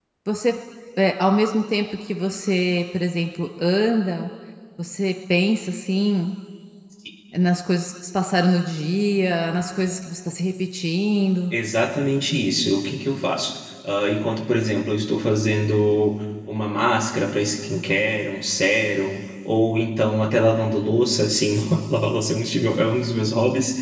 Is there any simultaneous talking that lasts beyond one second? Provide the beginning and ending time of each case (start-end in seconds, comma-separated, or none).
none